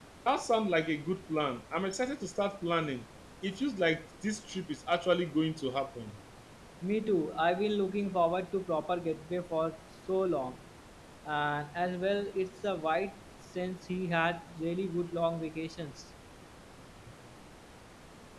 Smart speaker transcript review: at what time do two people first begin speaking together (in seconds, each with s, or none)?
none